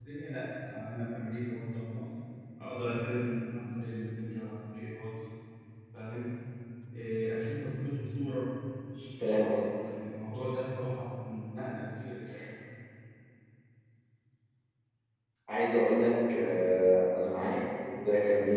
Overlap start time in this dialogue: none

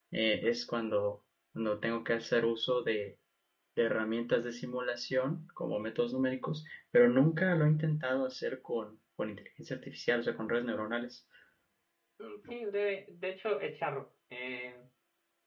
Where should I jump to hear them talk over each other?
none

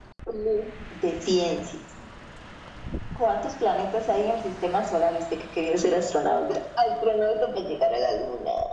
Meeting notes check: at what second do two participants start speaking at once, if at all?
none

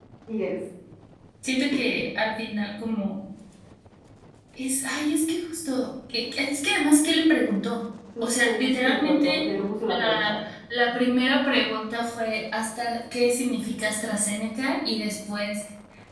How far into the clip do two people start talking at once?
8.2 s

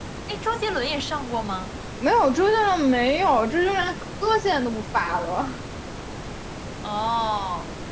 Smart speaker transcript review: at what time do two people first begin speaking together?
none

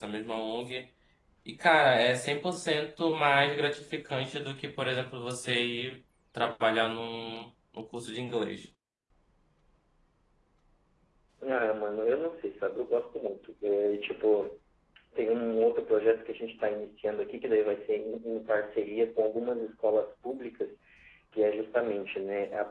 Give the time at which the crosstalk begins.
none

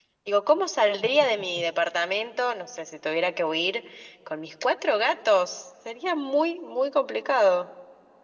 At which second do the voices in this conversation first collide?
none

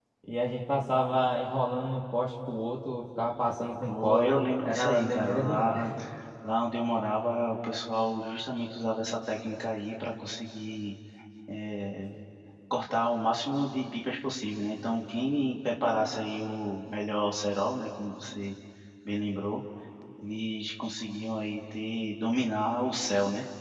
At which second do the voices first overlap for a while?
3.8 s

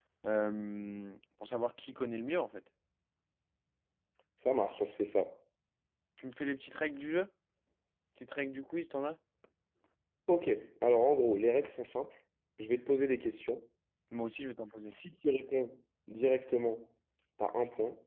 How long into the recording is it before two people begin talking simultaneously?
none

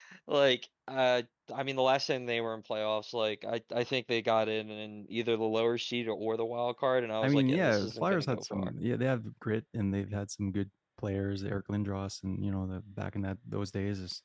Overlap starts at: 7.2 s

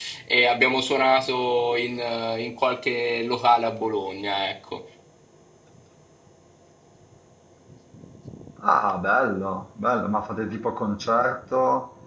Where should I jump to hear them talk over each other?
none

